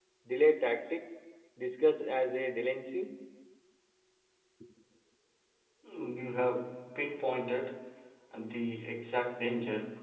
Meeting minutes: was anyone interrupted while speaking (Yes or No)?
No